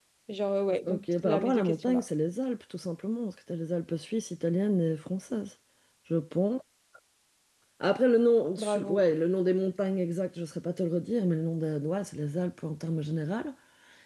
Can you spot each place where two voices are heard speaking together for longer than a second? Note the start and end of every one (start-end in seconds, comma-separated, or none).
0.8-2.0